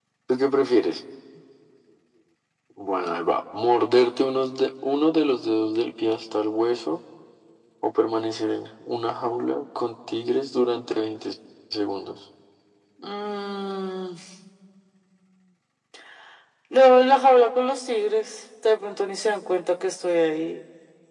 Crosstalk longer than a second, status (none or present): none